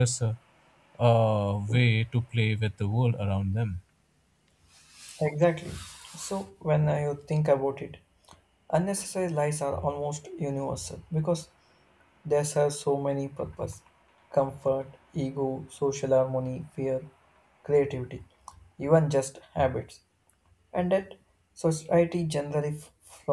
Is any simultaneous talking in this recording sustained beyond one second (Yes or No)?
No